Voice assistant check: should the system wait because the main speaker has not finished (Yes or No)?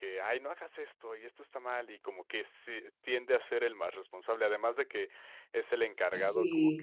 Yes